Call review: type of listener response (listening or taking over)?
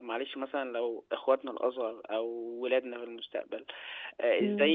listening